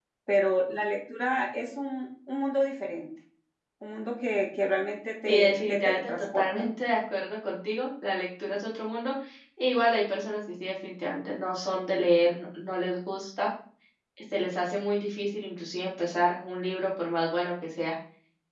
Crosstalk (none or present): present